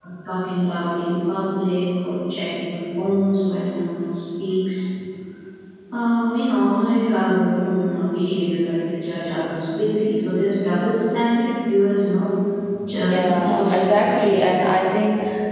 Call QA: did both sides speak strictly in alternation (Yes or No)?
No